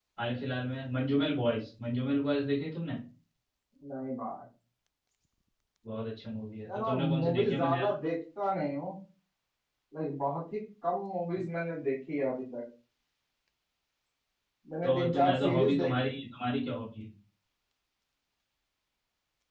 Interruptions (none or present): present